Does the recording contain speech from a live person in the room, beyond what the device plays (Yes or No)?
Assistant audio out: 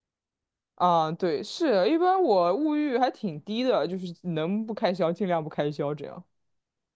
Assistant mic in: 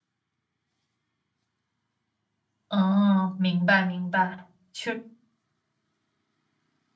Yes